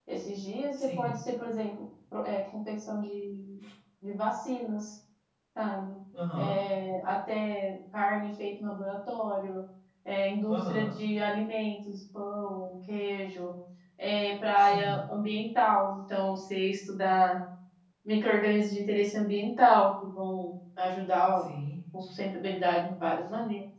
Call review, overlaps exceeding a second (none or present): none